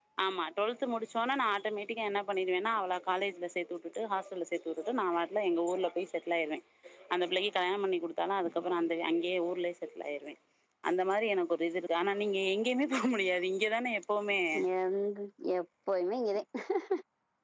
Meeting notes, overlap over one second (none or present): none